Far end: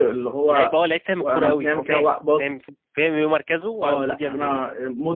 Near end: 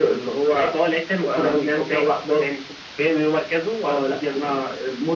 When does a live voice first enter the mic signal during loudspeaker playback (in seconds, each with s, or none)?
none